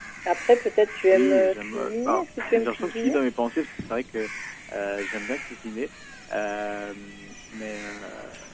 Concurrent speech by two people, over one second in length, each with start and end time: 1.1-3.2

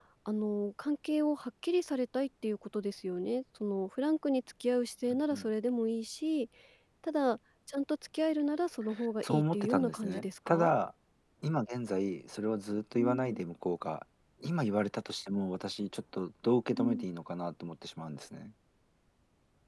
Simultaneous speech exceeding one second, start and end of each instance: 9.3-10.7

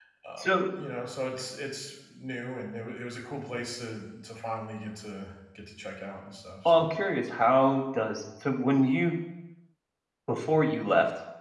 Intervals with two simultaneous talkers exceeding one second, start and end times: none

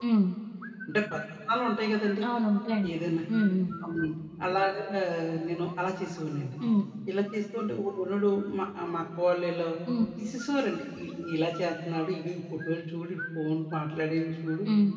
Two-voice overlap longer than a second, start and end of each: none

